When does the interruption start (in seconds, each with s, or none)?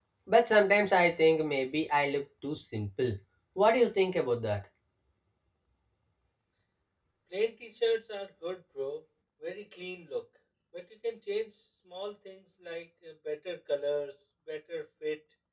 none